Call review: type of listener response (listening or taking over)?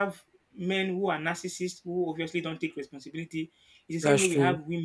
listening